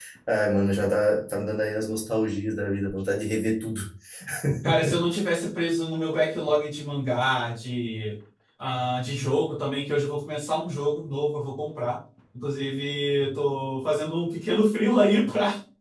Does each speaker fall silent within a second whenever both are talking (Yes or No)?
Yes